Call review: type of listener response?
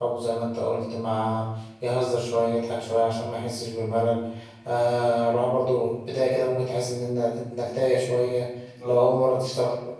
listening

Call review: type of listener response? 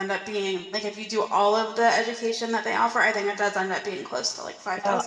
taking over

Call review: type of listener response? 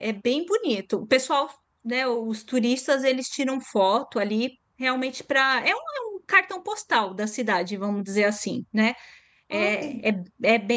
listening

